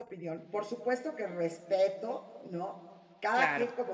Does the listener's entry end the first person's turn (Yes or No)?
No